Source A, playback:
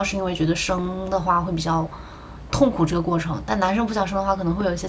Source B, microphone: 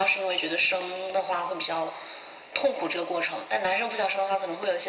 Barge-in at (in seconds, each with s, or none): none